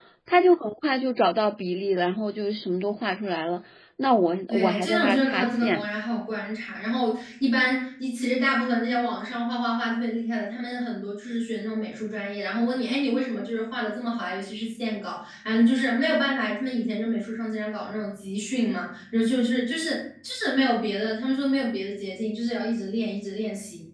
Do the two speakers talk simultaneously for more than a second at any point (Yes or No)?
Yes